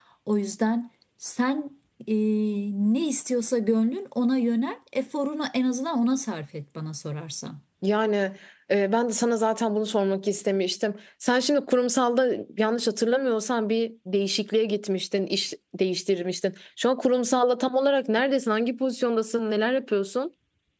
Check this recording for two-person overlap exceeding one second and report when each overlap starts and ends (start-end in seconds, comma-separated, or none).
none